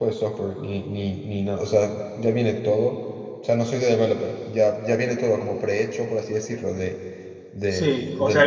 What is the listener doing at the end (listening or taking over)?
taking over